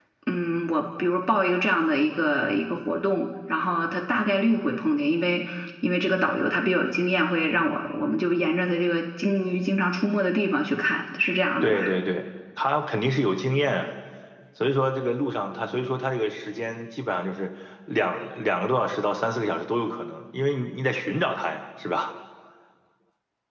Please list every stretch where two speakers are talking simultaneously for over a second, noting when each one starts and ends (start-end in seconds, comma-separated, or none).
none